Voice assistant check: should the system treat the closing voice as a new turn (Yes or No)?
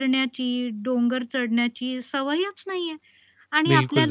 No